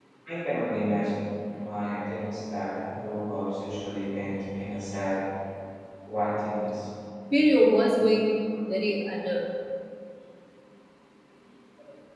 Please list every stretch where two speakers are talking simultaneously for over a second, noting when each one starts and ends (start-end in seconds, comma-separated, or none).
none